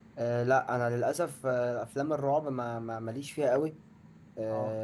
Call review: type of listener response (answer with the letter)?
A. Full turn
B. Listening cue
B